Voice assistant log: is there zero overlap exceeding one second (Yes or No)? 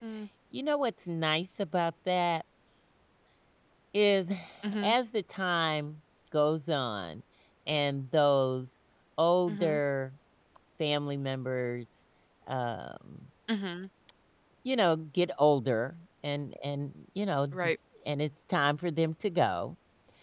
Yes